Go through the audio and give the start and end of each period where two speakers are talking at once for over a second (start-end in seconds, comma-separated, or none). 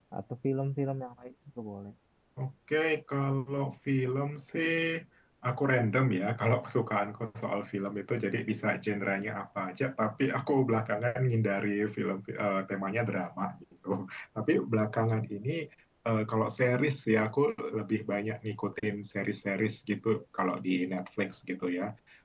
none